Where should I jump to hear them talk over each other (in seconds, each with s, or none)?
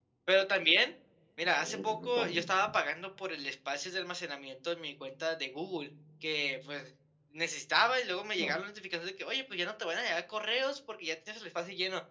1.4 s